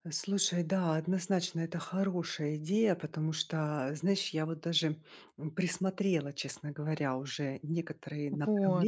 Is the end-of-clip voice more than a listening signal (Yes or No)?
No